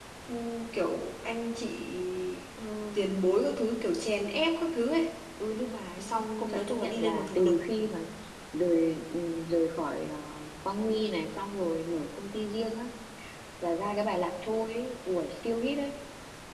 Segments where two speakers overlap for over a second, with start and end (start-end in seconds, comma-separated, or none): 6.0-7.6